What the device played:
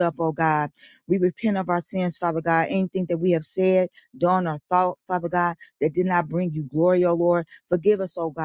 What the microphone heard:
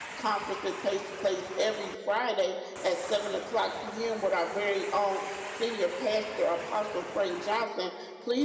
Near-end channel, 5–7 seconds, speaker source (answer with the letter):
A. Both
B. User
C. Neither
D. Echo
B